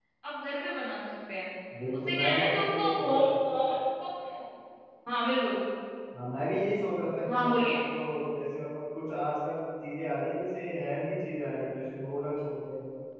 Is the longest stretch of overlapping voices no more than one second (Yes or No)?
No